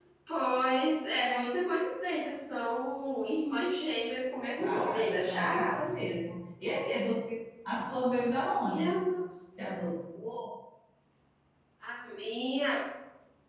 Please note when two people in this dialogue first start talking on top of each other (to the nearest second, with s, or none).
5 s